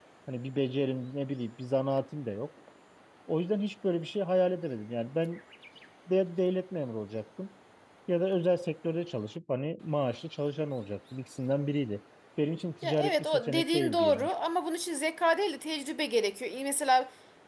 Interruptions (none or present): present